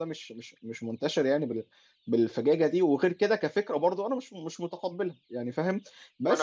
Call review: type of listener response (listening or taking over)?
listening